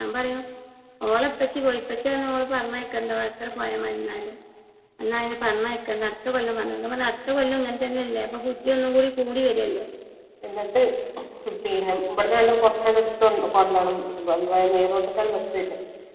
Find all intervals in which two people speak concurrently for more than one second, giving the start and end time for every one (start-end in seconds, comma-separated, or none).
none